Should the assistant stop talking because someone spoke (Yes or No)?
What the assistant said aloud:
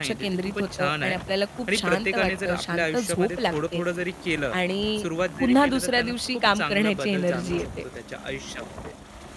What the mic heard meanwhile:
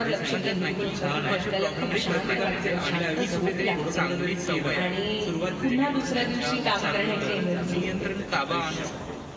Yes